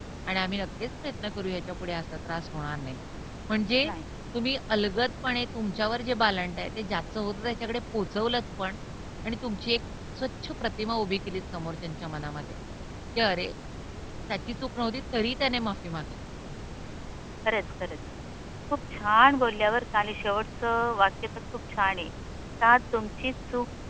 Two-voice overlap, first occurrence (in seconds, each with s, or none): none